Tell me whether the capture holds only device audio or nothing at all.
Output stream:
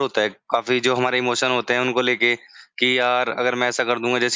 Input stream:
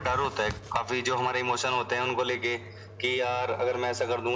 Yes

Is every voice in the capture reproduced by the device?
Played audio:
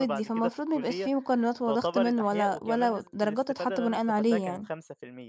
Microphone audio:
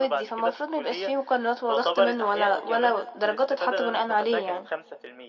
Yes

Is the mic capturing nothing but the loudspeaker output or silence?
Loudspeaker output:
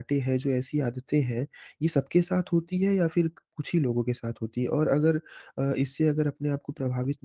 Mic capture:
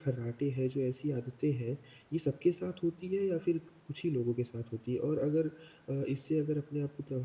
Yes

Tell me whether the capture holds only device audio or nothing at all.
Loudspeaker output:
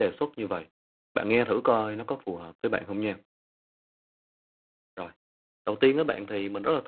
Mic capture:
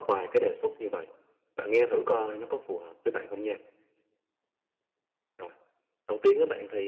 Yes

